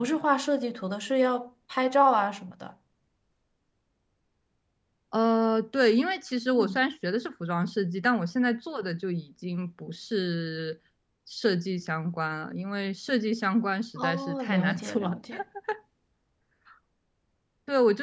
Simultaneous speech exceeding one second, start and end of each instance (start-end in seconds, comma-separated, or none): 14.0-15.2